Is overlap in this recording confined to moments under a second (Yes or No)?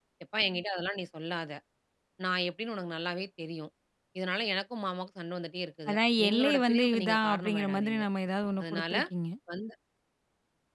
No